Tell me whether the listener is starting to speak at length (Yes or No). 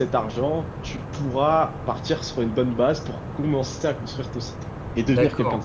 Yes